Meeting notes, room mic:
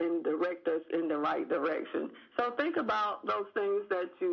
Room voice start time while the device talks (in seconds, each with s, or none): none